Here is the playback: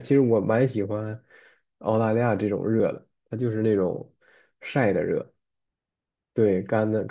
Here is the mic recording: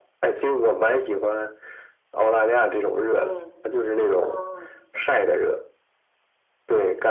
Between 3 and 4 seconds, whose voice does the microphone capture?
both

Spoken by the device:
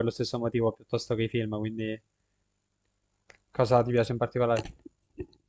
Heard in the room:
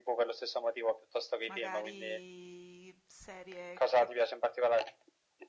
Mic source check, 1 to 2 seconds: both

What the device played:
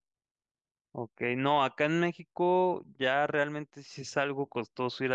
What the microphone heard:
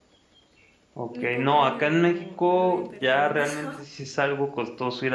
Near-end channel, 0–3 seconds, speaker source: both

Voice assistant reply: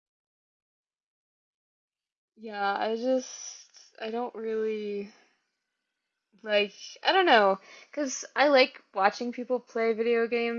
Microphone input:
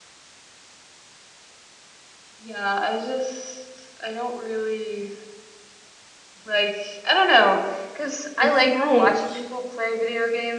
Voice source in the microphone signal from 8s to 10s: both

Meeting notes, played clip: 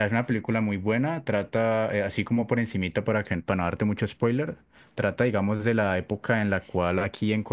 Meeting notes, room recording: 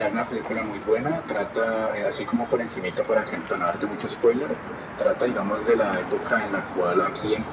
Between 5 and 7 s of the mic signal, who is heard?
echo only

